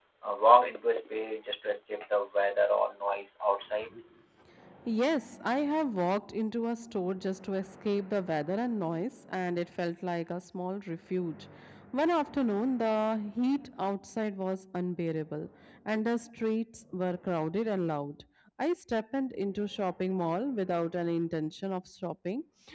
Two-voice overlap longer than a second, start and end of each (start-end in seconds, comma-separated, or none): none